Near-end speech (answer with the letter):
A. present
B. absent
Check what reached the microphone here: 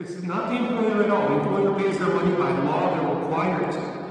A